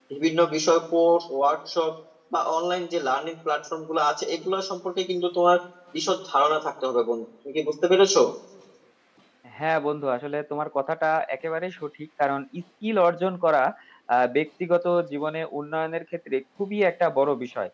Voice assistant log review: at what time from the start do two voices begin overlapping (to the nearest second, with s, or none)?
none